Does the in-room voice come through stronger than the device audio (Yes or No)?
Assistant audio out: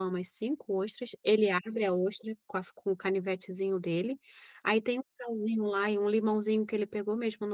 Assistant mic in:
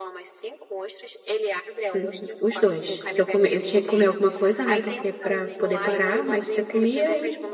Yes